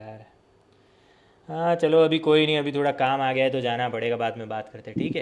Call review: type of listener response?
taking over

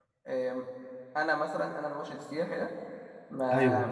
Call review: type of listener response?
listening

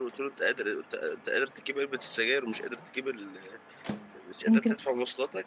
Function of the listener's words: listening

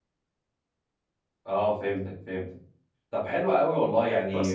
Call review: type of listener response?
listening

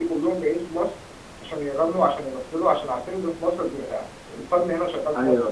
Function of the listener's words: taking over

